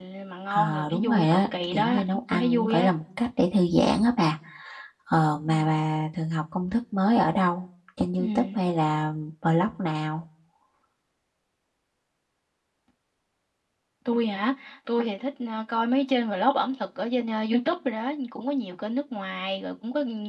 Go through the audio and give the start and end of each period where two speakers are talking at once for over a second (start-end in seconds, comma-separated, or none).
0.5-2.9